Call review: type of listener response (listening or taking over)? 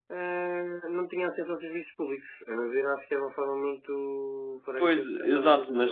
taking over